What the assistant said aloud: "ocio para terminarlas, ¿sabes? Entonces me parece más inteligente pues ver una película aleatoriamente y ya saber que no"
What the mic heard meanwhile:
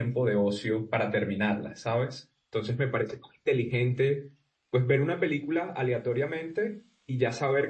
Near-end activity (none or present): none